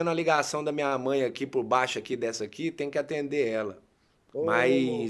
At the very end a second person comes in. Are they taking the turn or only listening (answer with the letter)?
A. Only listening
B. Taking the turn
A